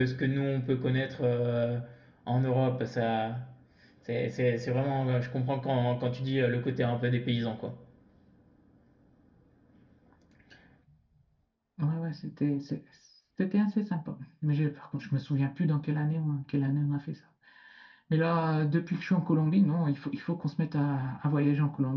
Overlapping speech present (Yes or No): No